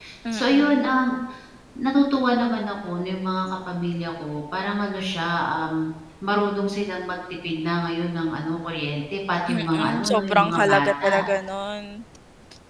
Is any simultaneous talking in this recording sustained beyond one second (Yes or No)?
Yes